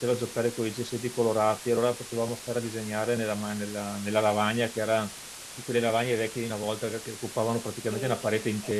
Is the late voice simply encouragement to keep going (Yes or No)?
No